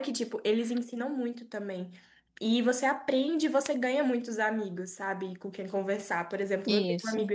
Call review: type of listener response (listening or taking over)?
listening